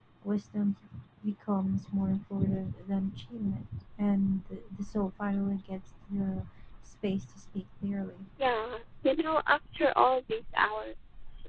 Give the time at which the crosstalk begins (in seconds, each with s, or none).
none